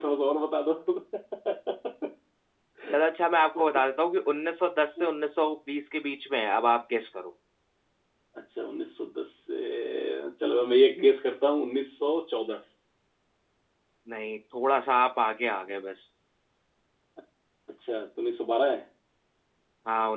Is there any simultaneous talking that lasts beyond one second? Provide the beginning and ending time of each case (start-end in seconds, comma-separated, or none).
none